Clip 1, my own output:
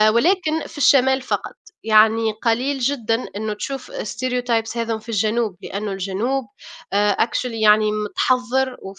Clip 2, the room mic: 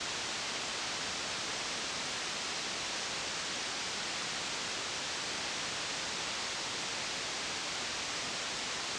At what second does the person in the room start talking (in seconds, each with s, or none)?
none